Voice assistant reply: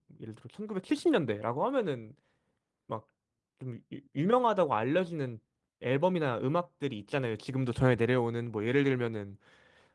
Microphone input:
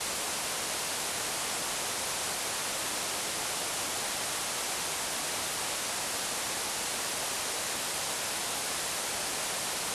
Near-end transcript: none

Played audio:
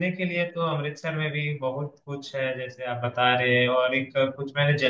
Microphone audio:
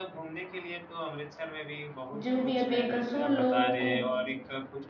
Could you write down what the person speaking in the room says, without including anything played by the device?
जो भी है बेकसूर लोग को

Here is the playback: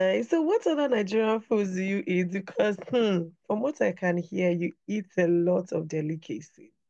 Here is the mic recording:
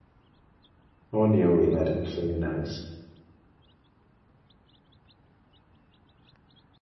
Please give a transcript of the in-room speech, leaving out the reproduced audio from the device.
on your way, yeah, that's very nice.

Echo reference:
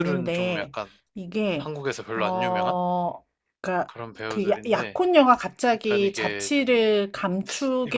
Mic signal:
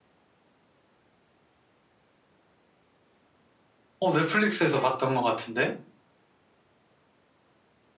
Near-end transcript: 어, 넷플릭스에서 봤던 것 같은데?

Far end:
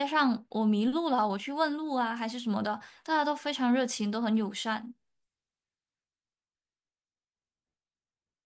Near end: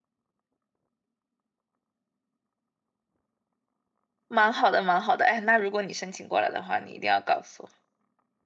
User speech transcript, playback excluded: 蛮好的，蛮好的。哎，那如果你申请过来的话，你一定要告诉我。

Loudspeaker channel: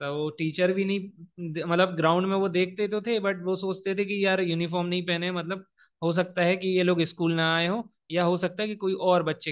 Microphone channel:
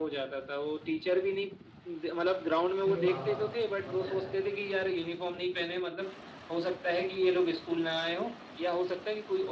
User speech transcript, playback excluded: अरे वाह वाह बहुत प्यारा

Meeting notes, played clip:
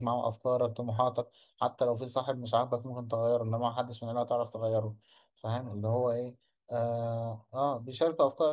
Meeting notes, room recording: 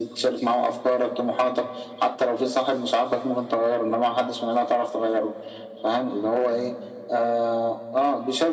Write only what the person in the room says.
none

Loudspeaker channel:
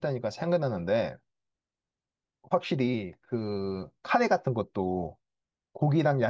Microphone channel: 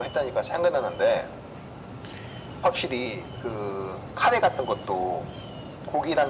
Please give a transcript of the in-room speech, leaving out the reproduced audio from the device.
none

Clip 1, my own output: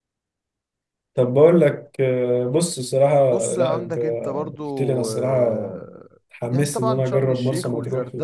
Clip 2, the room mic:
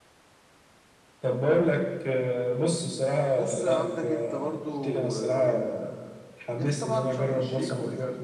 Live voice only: none

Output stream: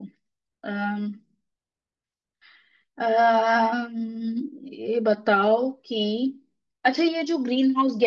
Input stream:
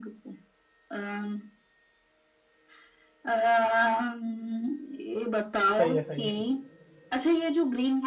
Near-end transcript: सही है सही है

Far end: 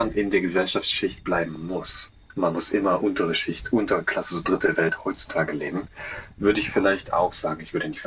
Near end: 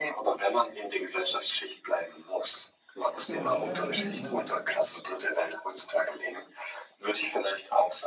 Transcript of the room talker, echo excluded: Ja, aber was heißt, was heißt denn, was,

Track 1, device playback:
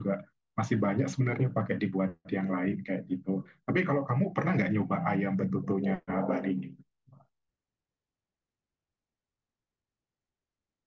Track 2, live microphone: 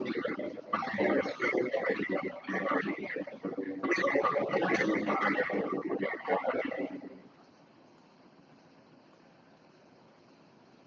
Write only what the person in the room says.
none

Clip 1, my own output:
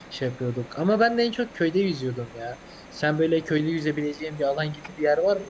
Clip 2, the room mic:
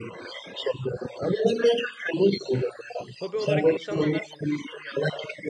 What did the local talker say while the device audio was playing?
hobi olarak insanlar

